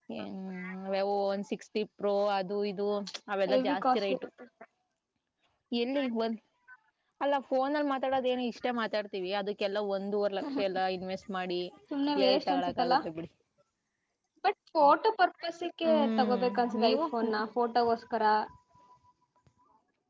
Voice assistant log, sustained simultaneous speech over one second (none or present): present